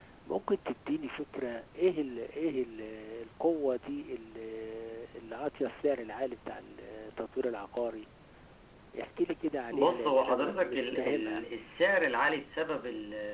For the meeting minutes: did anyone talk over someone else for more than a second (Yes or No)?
Yes